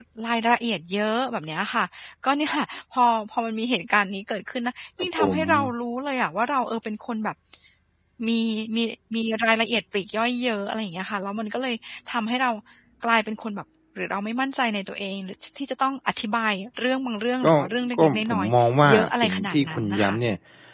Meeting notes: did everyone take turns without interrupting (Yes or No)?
No